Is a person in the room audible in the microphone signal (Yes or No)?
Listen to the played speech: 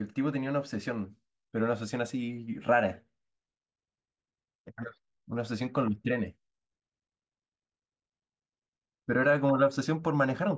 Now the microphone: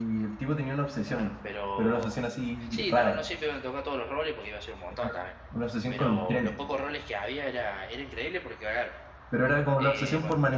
Yes